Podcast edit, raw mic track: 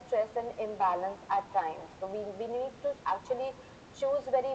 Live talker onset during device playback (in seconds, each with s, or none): none